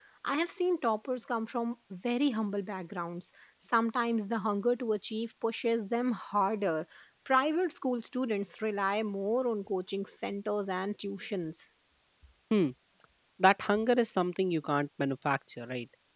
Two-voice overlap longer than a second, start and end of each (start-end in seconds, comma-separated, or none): none